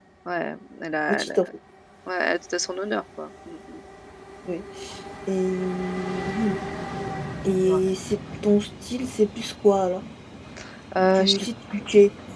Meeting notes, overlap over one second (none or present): none